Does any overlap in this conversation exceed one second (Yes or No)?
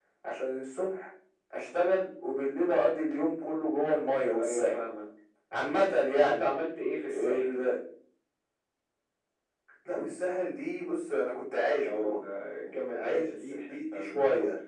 Yes